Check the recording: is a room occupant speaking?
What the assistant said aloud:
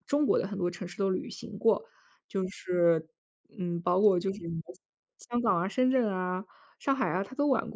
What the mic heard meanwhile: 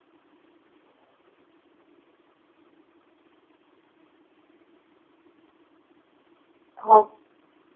Yes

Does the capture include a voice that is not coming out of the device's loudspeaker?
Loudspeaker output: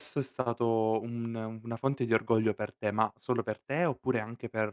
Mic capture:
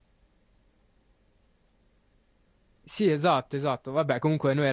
Yes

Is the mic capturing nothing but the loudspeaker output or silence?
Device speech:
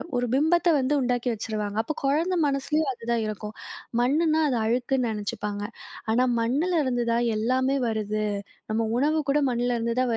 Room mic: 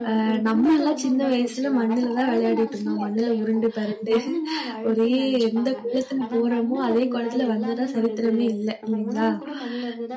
No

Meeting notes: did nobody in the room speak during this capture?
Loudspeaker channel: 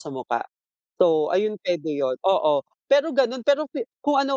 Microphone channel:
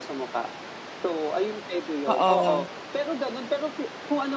No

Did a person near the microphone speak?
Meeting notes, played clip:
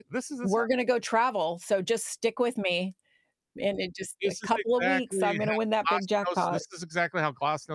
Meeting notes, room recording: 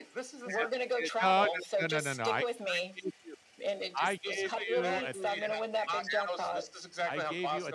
Yes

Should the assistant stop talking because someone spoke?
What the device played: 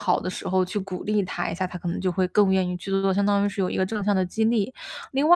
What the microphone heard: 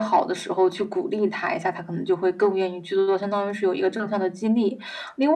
No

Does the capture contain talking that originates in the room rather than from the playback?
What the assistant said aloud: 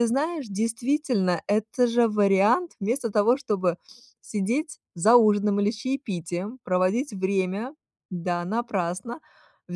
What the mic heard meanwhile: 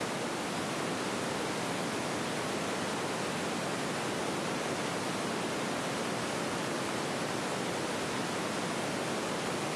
No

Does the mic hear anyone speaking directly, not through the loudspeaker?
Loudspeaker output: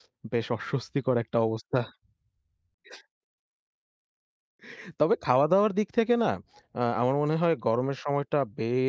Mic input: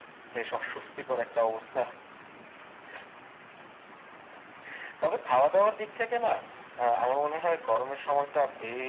No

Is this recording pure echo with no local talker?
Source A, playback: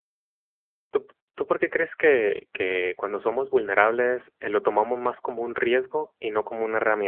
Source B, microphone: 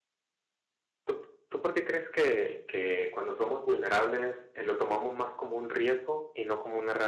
Yes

